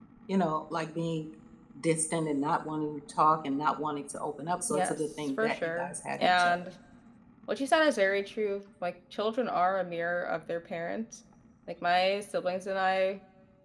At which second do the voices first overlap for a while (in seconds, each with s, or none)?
4.7 s